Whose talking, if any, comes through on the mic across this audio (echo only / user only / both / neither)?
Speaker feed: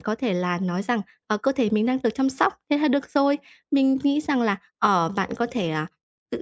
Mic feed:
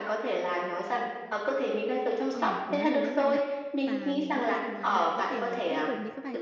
both